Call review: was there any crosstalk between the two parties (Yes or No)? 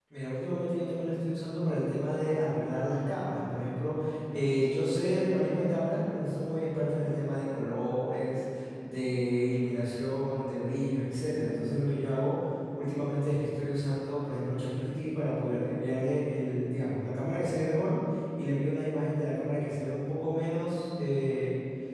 No